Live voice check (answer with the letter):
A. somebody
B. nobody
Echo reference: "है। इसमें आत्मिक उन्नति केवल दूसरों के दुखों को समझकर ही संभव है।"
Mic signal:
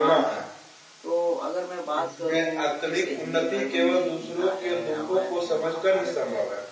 A